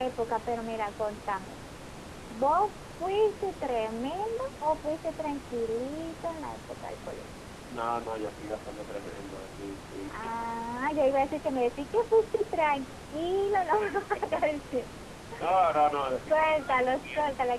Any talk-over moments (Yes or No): Yes